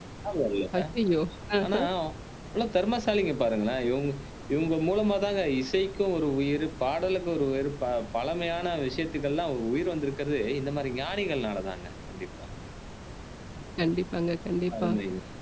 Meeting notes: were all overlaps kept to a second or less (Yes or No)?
Yes